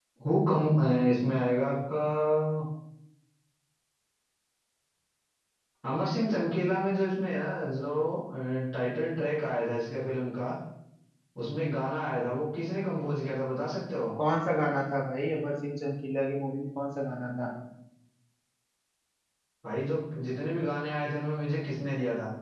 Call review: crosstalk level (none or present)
none